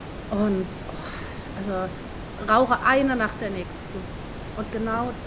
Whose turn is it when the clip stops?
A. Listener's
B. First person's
B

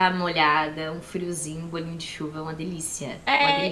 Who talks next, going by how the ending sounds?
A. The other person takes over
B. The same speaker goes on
A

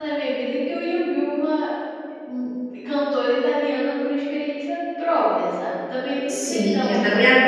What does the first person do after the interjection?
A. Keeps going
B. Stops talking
B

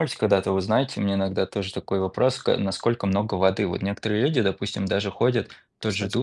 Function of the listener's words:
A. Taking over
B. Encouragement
B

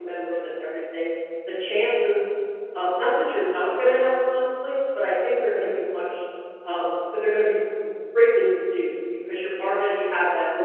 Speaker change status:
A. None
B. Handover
A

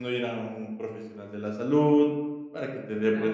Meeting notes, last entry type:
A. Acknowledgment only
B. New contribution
A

